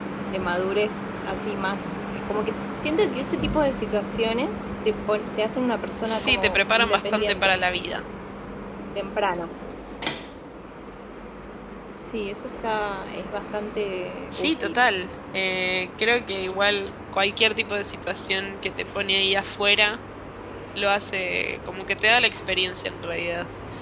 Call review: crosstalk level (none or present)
present